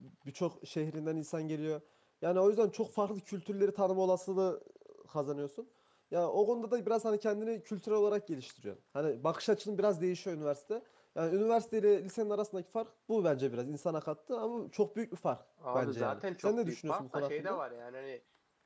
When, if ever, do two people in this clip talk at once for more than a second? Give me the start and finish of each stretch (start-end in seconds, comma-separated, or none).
15.7-17.6